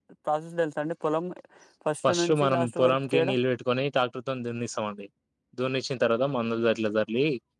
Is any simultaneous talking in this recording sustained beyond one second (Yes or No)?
Yes